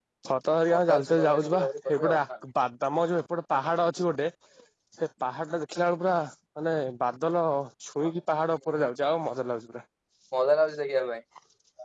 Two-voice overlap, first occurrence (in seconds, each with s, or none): 0.7 s